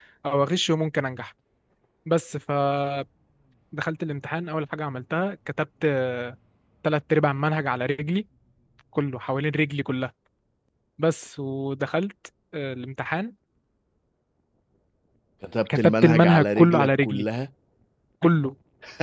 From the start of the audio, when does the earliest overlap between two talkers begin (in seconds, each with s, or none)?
15.8 s